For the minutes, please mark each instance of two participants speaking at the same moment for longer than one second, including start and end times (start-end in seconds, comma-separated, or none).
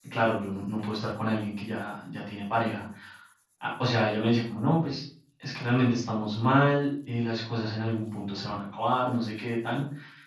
none